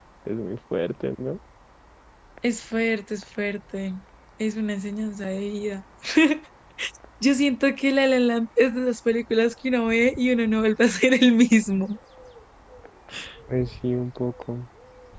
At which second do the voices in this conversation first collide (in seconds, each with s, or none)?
none